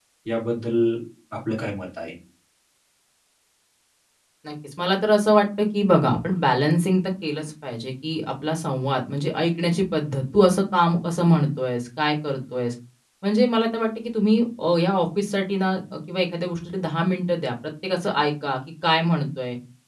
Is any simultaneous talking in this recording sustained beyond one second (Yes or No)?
No